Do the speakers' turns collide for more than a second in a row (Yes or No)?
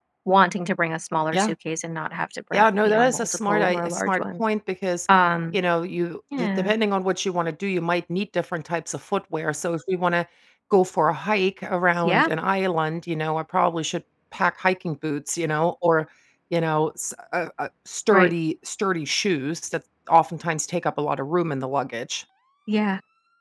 Yes